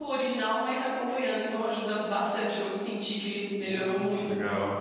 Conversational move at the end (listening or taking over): taking over